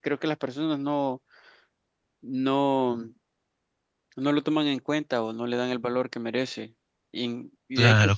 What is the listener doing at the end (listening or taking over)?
listening